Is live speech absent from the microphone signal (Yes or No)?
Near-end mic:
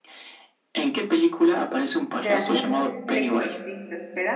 No